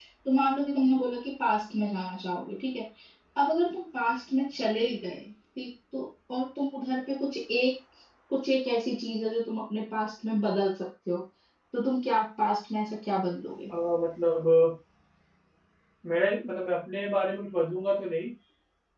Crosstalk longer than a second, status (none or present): none